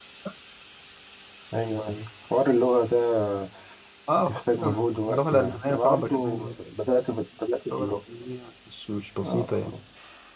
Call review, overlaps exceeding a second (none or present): present